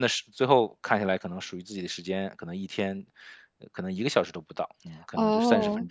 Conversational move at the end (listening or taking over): taking over